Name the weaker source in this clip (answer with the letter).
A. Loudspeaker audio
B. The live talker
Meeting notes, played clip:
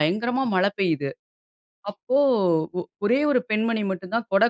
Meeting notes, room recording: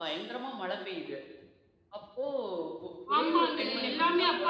A